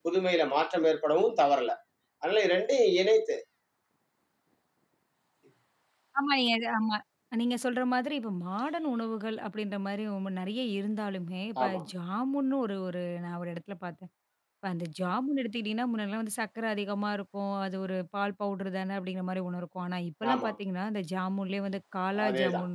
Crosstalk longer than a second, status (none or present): none